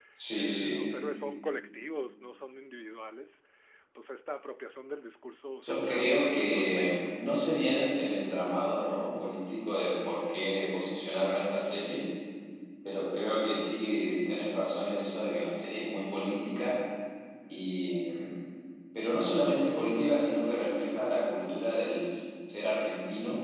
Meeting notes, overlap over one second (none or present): present